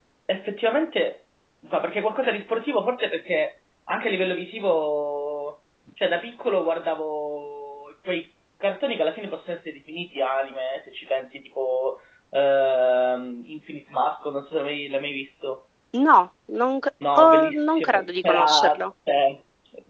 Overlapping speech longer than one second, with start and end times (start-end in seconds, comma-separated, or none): 17.1-18.8